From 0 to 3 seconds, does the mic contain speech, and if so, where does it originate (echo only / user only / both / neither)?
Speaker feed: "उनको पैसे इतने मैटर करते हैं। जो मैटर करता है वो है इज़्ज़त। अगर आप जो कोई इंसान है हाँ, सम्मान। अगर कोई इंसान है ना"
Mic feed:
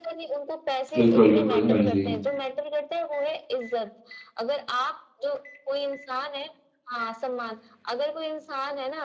both